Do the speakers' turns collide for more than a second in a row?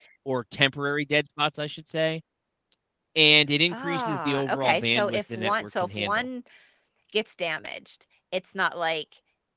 Yes, from 3.7 s

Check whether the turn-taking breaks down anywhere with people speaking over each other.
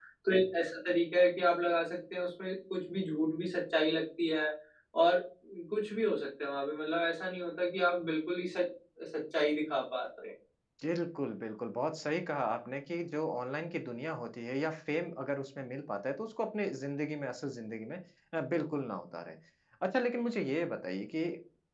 No

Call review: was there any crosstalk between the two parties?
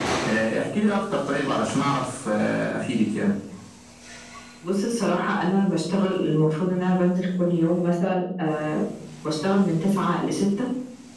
No

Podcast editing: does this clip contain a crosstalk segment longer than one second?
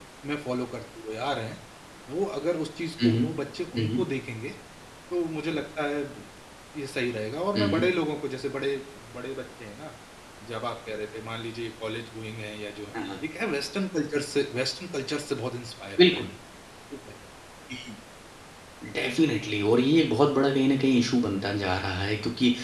No

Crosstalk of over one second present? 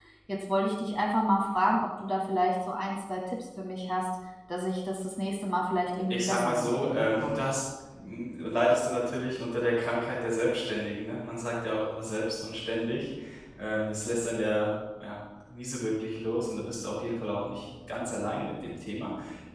Yes, from 6.1 s

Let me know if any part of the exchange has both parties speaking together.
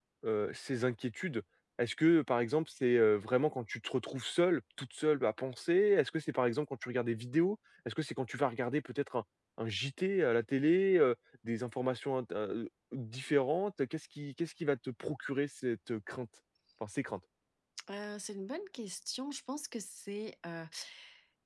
No

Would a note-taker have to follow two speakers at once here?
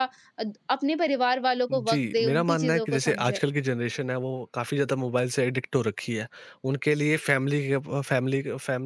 Yes, from 1.7 s

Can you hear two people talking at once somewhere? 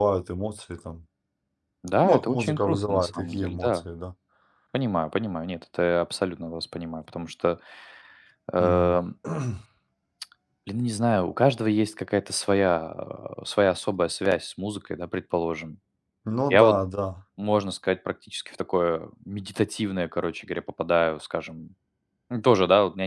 Yes, from 2.0 s

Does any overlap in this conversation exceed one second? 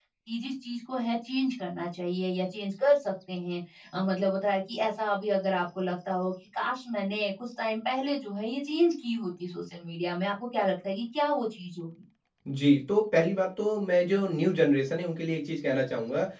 No

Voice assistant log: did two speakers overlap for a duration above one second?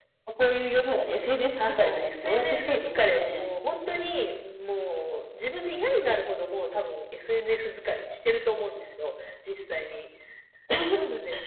Yes, from 1.6 s

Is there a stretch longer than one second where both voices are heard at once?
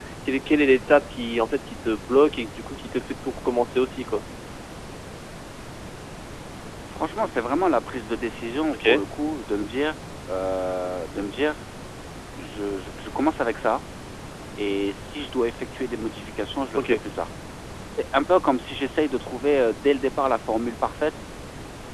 No

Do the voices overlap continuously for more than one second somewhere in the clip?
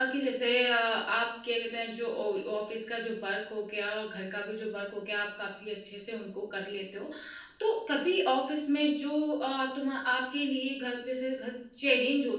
No

